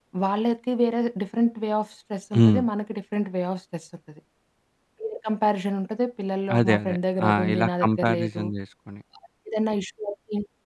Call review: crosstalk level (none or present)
present